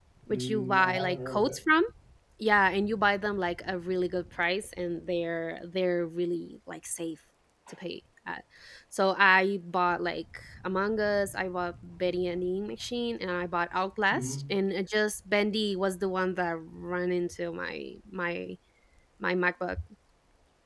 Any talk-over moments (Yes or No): Yes